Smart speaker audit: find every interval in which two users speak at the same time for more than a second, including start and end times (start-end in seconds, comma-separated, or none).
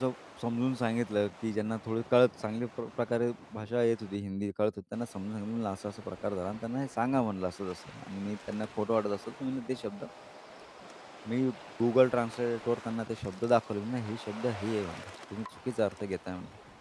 none